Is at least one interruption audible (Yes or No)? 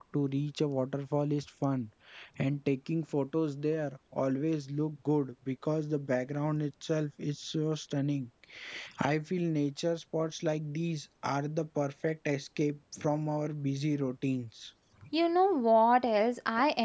No